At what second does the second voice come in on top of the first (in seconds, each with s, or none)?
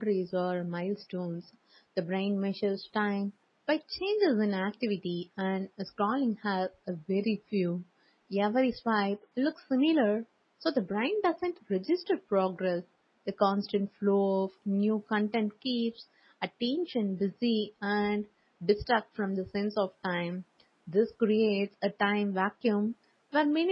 none